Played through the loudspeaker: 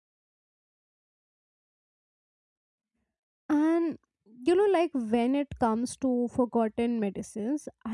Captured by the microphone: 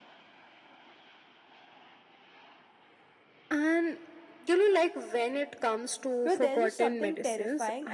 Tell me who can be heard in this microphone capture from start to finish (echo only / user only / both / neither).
both